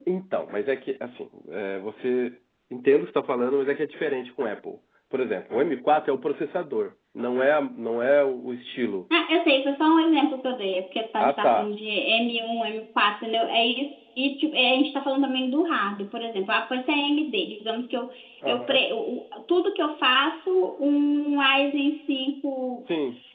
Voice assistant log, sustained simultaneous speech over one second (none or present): none